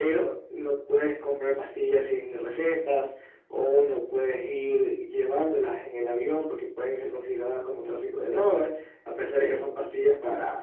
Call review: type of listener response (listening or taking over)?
listening